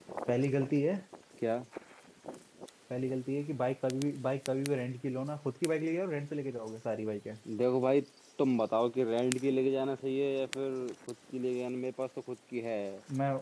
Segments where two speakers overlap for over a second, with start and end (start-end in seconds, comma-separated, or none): none